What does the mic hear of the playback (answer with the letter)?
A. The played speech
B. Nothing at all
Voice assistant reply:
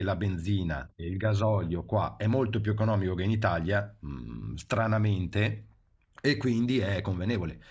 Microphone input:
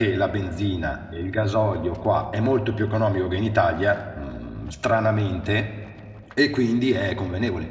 A